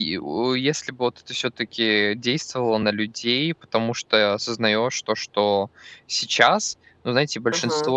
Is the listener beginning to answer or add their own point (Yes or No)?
No